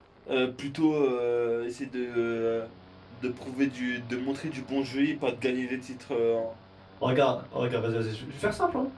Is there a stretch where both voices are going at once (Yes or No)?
No